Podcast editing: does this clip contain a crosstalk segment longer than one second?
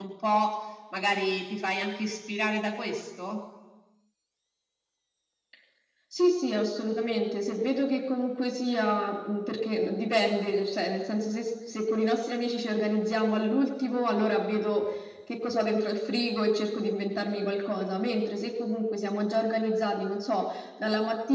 No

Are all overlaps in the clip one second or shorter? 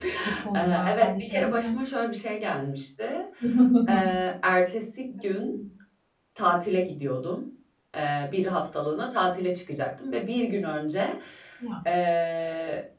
No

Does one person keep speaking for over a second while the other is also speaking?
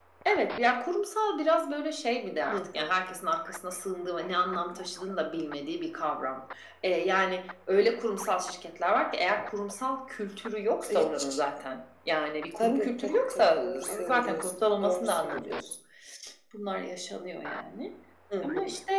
Yes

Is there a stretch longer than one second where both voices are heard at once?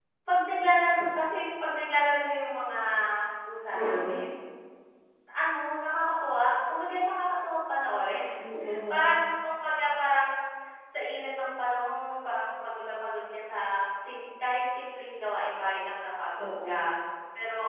No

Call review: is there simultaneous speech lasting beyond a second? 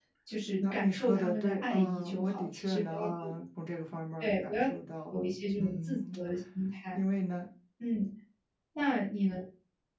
Yes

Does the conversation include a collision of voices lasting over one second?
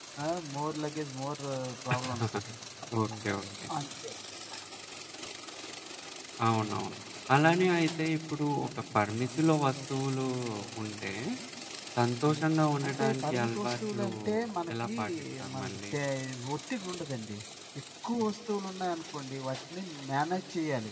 Yes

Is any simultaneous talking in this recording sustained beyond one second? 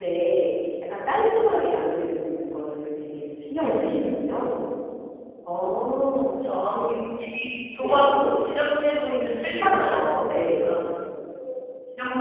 Yes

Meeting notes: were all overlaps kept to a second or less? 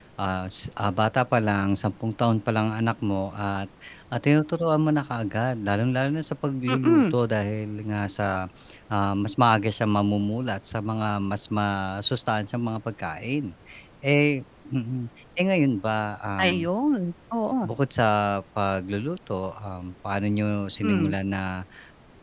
Yes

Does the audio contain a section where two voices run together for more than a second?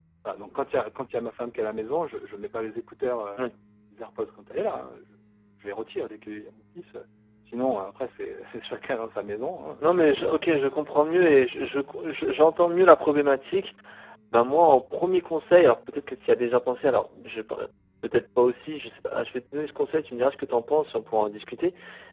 Yes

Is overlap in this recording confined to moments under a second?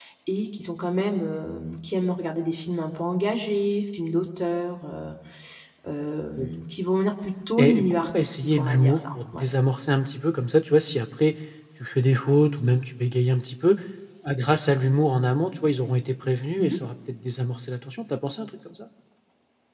No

